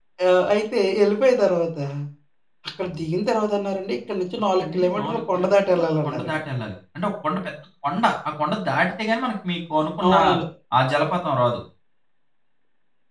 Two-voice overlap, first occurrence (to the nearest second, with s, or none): 5 s